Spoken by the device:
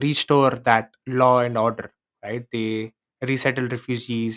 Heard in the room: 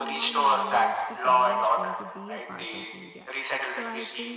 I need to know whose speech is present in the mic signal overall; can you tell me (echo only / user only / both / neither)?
both